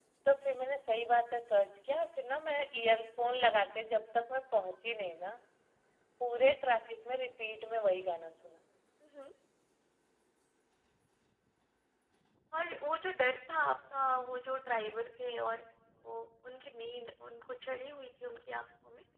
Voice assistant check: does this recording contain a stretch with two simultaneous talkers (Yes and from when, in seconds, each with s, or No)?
No